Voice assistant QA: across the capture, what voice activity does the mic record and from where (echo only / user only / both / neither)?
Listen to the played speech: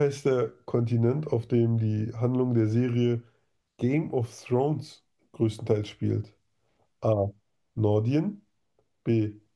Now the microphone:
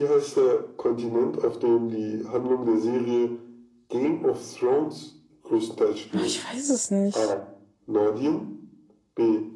both